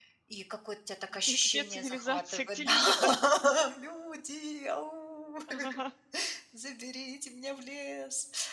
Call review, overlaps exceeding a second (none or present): present